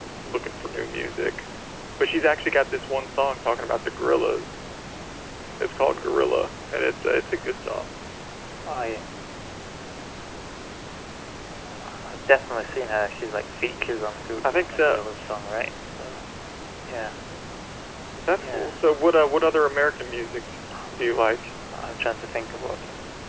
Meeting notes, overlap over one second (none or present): none